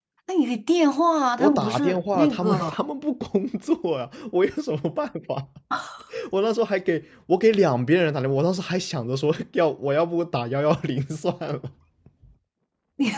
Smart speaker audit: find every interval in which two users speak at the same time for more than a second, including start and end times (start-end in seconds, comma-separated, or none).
1.4-2.8